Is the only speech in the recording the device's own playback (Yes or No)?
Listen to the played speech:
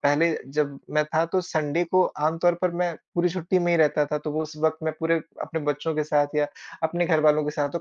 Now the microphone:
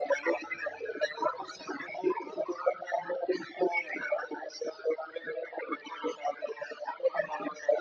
Yes